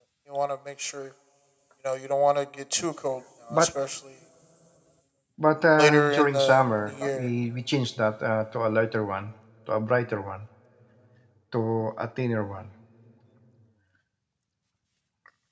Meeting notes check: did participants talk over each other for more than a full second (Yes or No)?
Yes